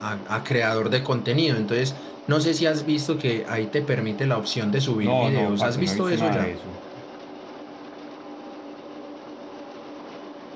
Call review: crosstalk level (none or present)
present